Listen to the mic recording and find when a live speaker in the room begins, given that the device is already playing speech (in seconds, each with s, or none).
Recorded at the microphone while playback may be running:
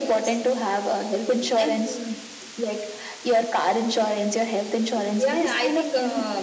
none